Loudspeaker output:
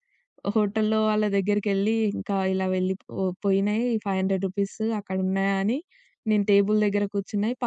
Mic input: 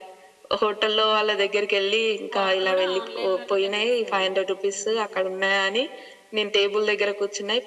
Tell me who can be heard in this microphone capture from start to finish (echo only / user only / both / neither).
both